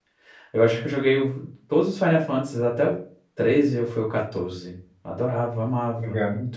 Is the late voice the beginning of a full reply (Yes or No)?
Yes